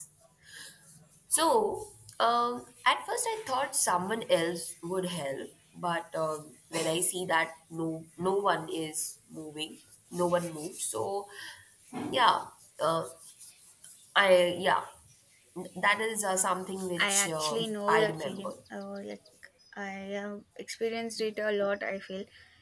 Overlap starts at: 17.0 s

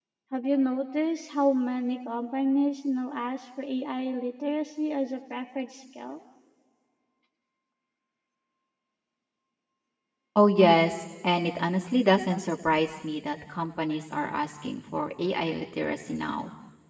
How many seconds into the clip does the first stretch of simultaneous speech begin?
none

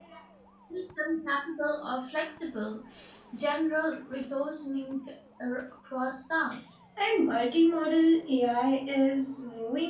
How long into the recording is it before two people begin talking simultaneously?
none

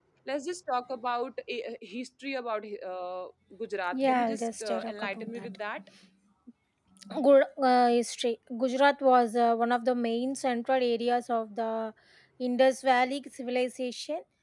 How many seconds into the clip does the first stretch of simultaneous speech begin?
3.9 s

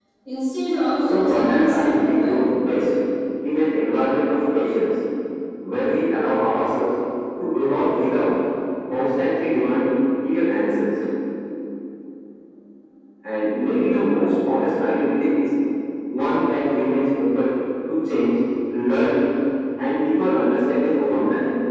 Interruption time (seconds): 1.1 s

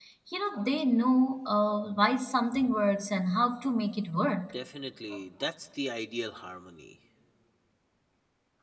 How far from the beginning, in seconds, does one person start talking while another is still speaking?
none

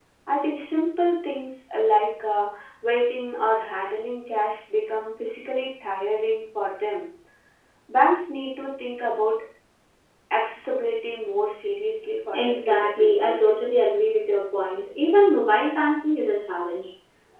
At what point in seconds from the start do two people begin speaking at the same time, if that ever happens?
12.3 s

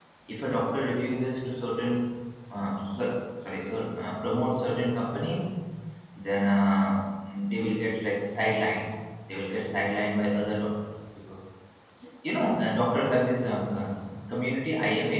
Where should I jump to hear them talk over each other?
none

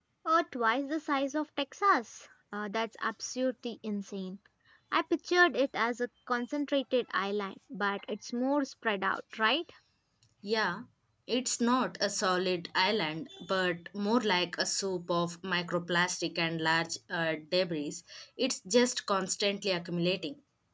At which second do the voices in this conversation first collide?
none

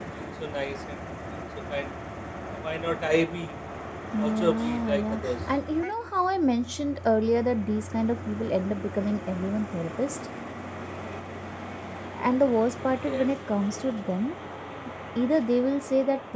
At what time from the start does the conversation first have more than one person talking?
4.2 s

